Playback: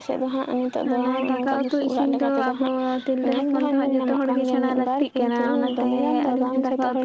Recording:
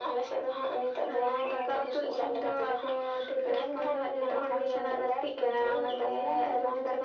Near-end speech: none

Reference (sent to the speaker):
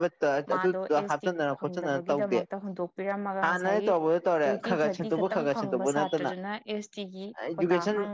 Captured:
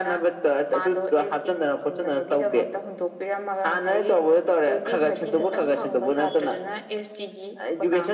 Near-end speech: none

